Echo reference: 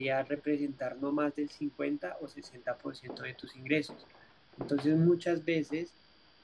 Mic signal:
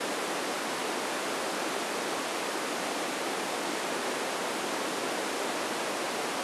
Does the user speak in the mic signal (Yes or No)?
No